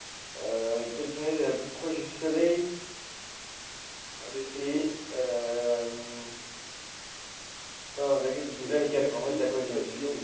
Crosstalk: present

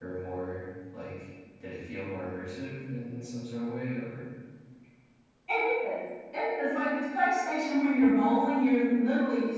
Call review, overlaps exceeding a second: none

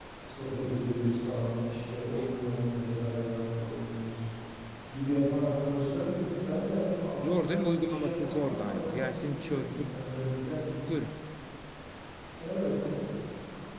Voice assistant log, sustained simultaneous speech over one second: present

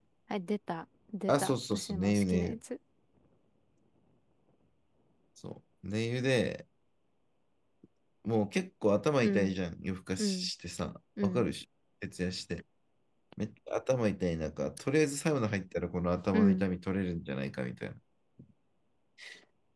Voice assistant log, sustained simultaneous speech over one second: present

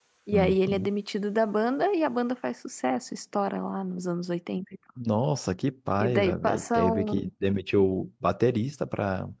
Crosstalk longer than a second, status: present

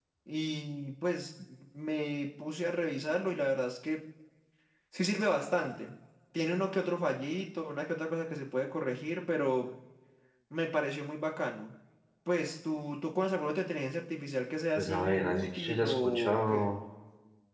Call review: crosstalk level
present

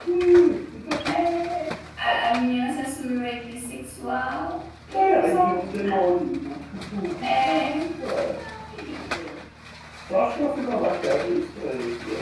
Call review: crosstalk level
present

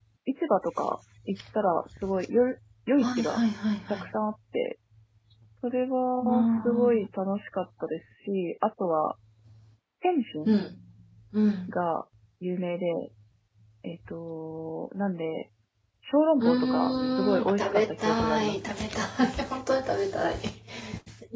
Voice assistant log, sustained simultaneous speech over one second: present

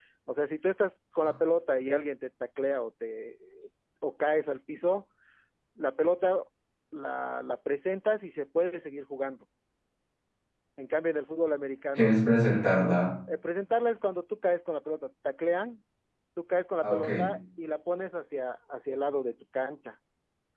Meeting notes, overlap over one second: none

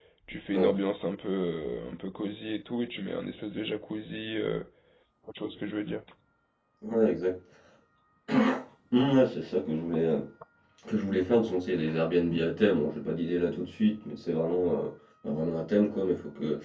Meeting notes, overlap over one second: none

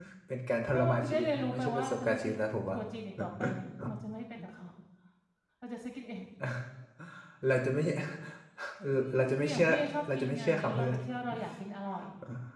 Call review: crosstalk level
present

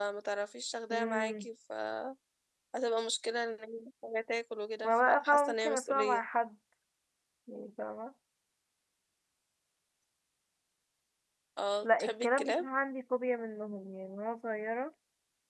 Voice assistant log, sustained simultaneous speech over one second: present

